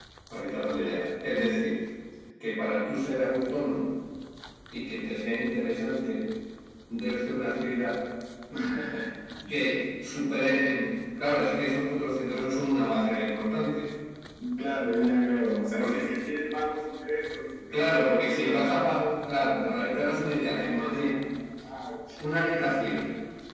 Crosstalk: present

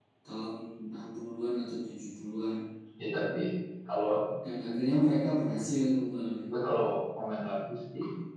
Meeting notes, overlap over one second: none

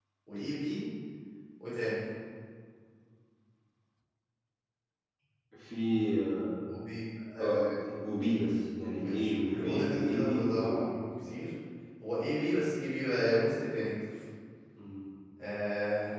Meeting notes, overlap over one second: present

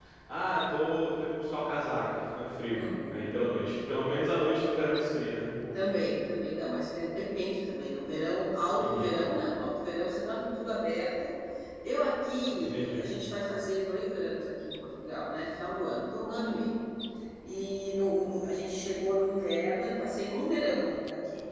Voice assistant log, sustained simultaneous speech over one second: none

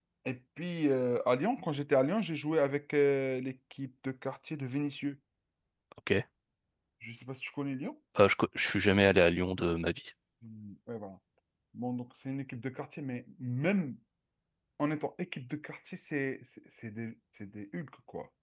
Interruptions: none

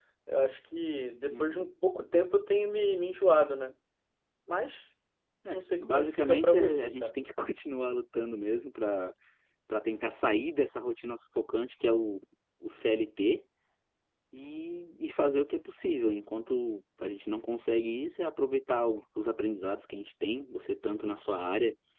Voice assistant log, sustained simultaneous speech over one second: present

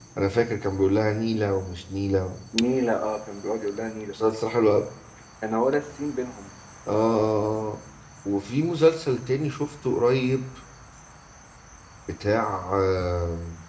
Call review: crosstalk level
none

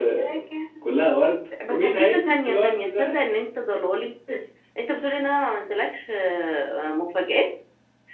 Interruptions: present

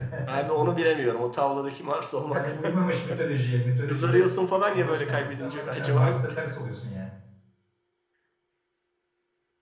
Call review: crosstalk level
present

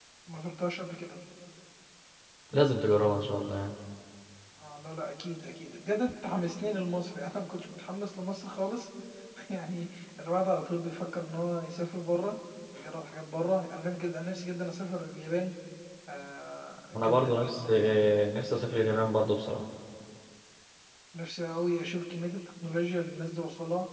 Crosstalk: present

